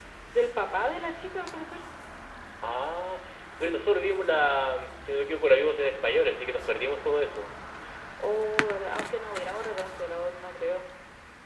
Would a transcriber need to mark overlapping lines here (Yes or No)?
No